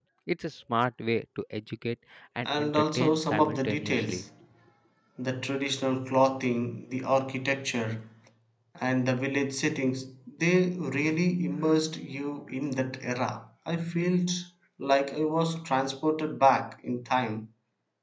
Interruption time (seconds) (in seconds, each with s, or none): 2.5 s